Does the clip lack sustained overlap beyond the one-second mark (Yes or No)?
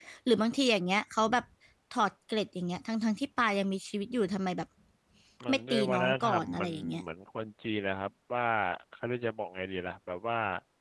No